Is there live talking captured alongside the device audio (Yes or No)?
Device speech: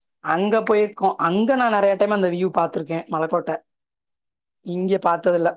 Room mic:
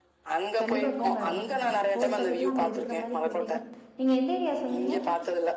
Yes